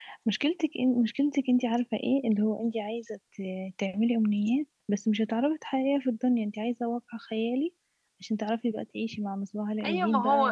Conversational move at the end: taking over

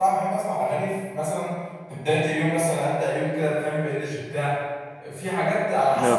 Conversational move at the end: listening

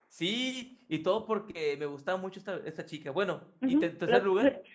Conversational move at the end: taking over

